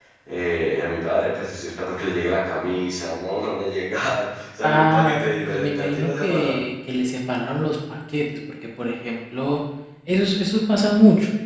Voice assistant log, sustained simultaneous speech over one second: present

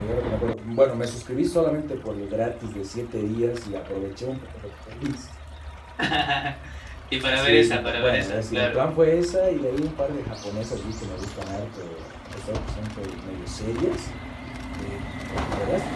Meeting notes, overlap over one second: present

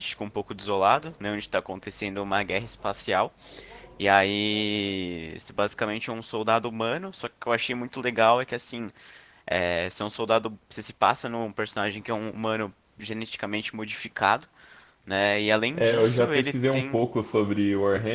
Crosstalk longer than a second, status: present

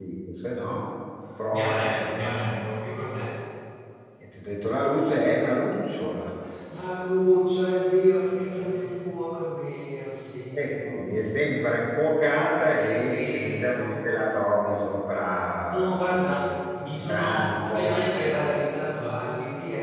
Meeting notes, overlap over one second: present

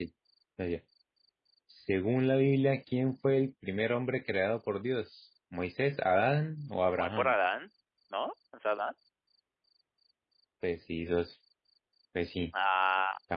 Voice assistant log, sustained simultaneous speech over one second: none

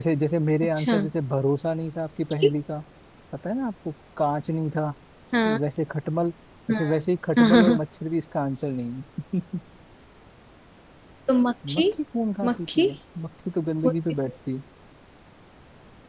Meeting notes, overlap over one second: none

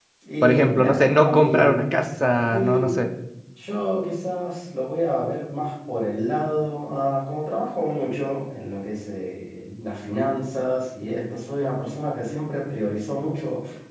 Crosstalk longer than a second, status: present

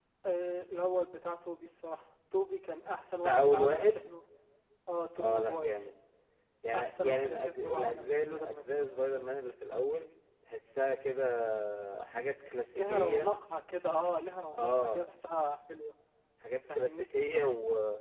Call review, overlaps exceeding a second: present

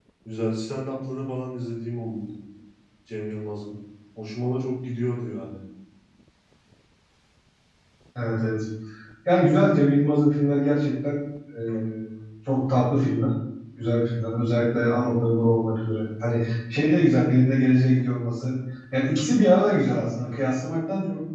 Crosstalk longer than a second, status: none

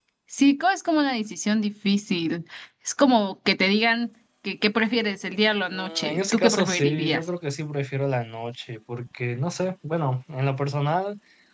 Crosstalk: present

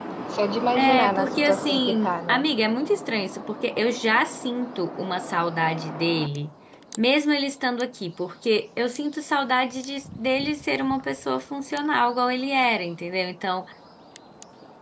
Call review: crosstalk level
present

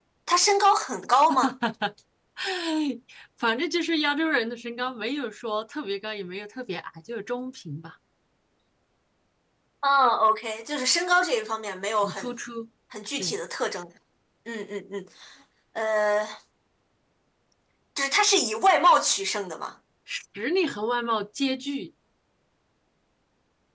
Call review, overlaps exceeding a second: none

